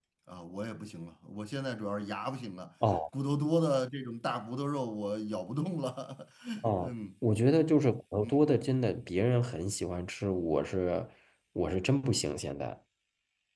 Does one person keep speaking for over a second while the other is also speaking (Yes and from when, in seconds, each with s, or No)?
No